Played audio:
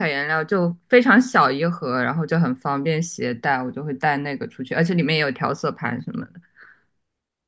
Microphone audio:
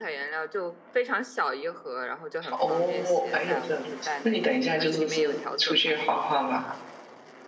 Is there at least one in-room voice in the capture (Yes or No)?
Yes